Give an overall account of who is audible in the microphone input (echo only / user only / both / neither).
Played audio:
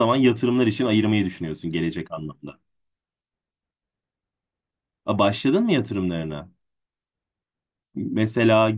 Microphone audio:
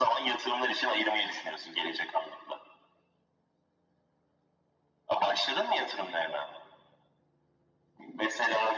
echo only